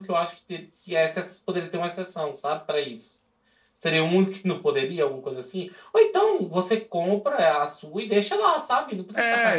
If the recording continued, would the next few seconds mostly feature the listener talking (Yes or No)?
Yes